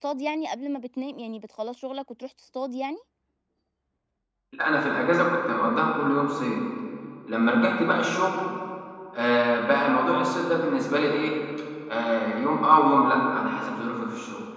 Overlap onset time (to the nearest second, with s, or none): none